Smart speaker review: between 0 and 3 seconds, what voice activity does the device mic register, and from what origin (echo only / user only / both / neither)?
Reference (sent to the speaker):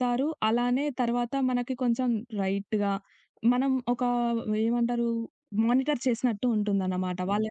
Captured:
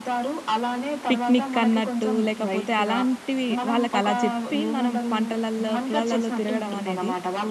both